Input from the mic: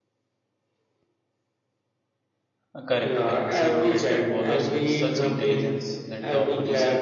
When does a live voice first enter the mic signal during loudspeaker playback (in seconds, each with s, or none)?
2.7 s